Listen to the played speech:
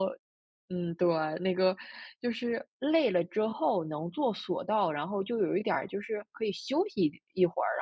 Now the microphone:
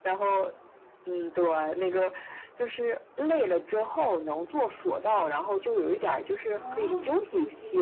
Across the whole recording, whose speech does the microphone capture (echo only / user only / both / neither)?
both